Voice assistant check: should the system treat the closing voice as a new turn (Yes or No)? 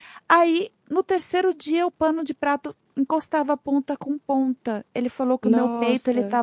No